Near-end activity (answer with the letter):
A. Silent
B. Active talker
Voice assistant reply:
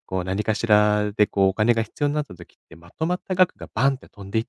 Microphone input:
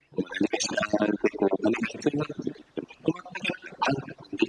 A